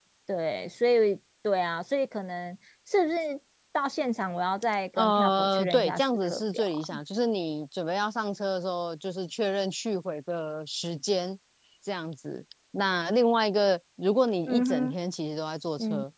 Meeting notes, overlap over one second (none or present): present